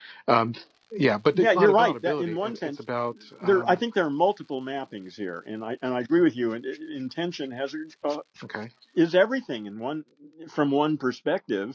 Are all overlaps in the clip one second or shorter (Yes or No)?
No